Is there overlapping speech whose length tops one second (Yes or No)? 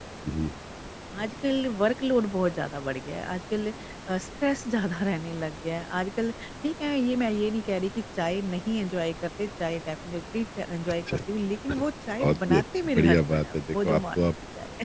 Yes